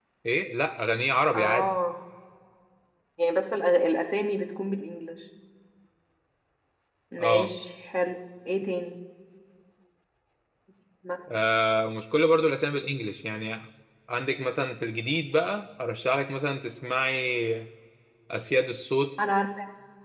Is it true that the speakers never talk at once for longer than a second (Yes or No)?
Yes